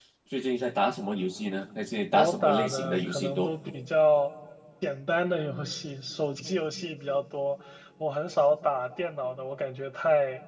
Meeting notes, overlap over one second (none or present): present